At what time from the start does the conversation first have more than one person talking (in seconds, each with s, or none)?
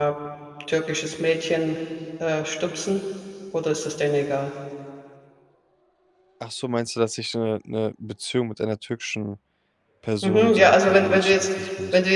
10.2 s